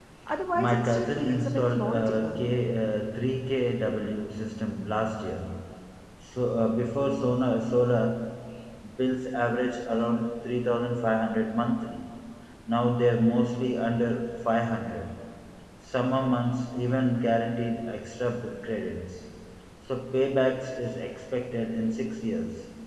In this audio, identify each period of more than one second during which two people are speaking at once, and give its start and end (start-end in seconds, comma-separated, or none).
0.6-2.4